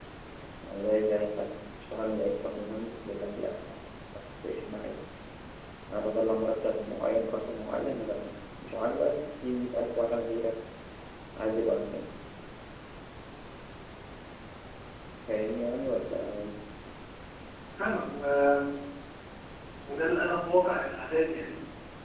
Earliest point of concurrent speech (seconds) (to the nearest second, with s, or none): none